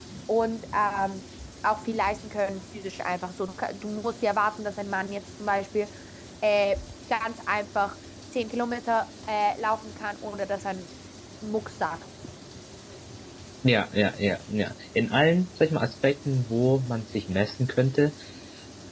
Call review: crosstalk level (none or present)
none